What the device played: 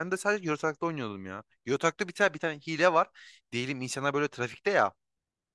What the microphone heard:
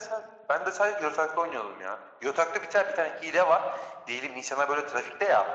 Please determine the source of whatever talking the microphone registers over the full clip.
echo only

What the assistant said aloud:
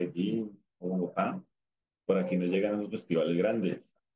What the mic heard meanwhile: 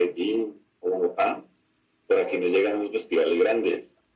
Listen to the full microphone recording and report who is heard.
echo only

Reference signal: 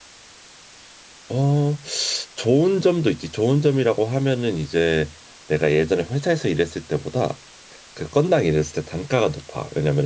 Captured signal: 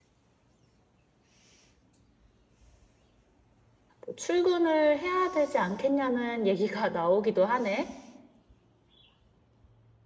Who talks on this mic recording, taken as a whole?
user only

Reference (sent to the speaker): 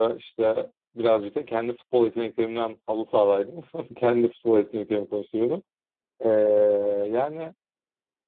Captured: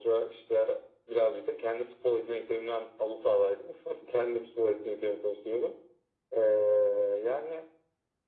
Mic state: echo only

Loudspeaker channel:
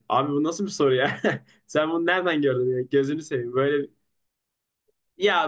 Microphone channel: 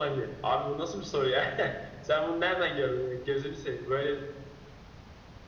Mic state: echo only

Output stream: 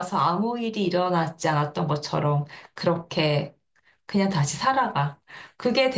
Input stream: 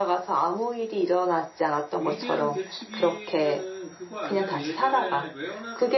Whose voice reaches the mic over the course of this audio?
both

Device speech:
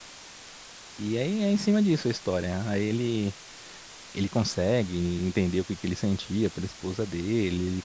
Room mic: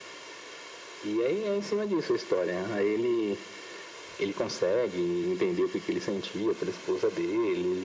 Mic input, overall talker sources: echo only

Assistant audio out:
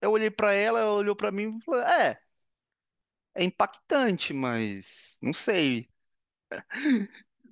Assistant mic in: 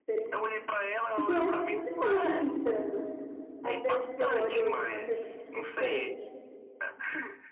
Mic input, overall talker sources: both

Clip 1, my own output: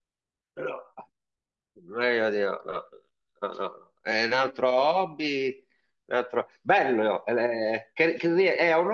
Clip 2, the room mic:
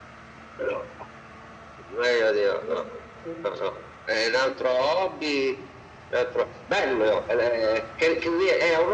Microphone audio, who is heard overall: both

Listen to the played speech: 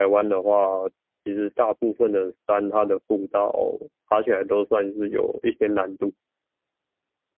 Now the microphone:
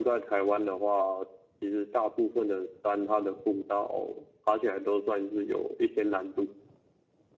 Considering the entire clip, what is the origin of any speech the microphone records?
echo only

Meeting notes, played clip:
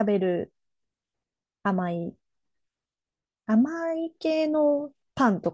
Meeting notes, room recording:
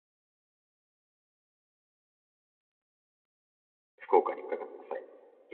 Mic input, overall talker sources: user only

